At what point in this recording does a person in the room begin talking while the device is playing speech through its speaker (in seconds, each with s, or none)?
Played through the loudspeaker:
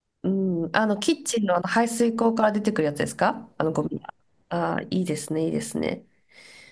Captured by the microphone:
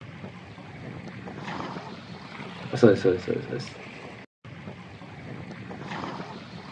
2.8 s